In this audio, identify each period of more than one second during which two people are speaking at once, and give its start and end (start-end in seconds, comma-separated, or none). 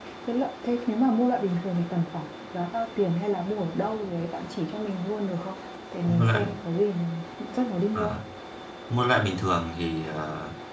none